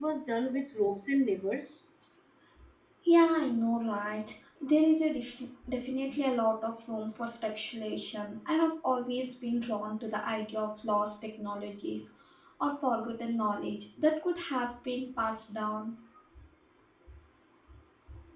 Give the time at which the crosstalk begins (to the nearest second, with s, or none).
none